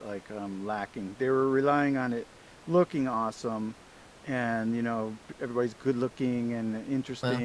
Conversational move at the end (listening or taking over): listening